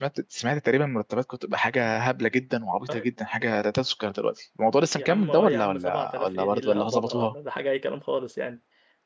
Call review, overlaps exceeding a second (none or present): present